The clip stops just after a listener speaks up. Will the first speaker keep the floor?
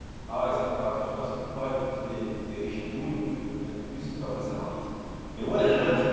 Yes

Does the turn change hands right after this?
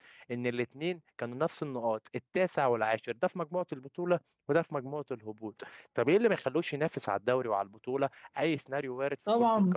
Yes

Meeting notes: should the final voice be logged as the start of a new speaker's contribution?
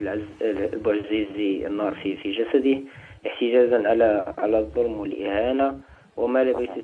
No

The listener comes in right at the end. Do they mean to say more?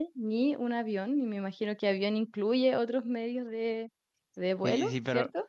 Yes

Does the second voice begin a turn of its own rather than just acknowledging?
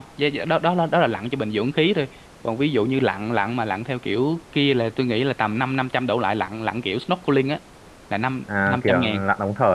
Yes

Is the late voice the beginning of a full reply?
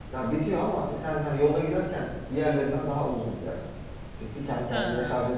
No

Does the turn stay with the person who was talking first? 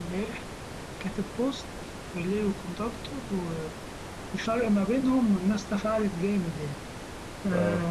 Yes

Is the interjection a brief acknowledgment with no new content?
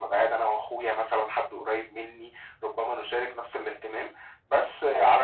Yes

